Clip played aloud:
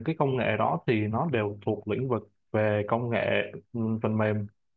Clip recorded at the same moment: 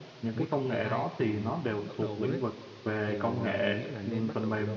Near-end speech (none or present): present